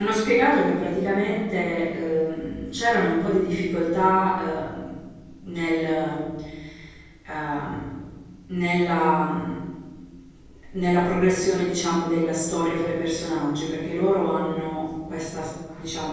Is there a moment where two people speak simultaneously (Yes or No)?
No